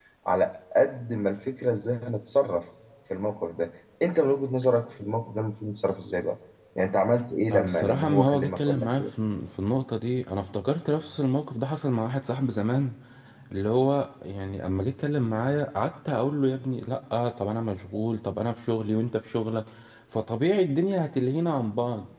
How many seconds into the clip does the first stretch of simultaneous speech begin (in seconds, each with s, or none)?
7.5 s